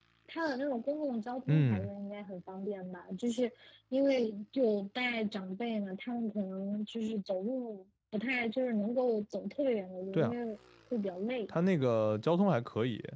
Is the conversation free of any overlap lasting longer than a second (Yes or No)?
Yes